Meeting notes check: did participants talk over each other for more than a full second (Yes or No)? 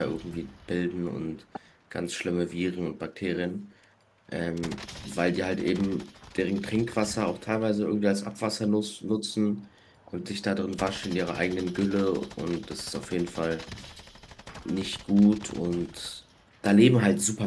No